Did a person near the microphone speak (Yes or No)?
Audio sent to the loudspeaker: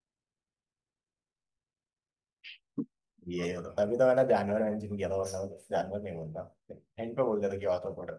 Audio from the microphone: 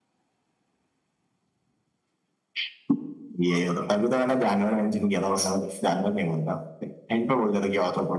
No